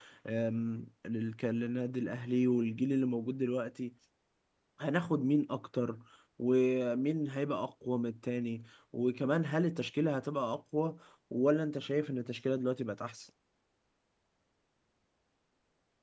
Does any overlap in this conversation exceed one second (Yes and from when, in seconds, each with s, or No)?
No